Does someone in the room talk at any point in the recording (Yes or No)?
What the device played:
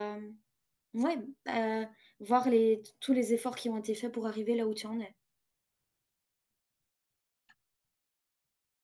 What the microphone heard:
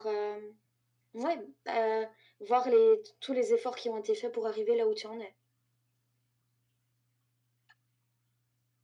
No